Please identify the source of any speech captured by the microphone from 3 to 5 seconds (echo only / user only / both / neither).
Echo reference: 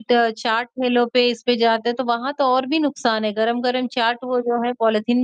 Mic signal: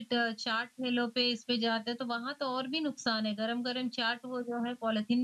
echo only